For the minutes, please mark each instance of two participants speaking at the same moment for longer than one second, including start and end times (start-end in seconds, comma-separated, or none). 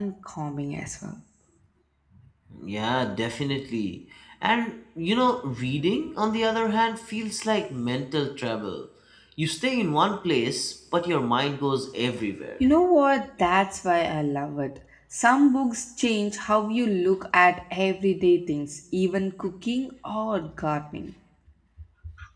none